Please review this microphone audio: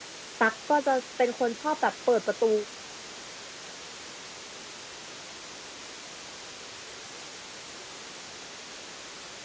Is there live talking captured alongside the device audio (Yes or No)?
Yes